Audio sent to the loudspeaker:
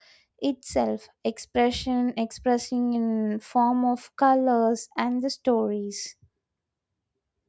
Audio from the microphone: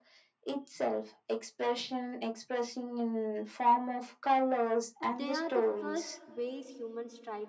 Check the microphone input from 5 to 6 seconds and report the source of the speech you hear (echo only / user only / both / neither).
both